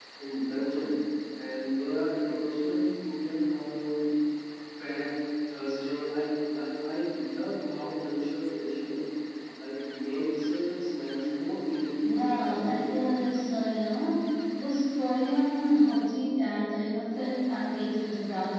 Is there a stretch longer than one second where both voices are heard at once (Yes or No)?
Yes